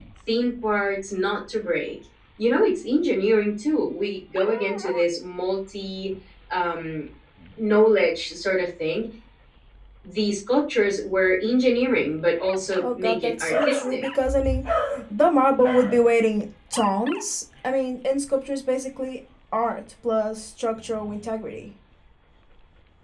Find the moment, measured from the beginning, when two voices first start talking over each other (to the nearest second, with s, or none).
13 s